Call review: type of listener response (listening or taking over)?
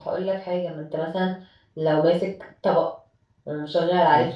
listening